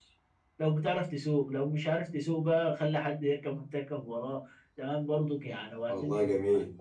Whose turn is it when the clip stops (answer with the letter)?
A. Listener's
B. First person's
B